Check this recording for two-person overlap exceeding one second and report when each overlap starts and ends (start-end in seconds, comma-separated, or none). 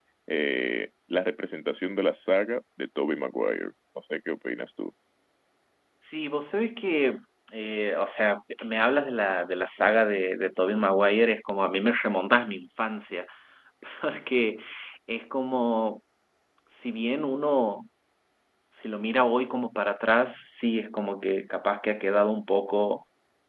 none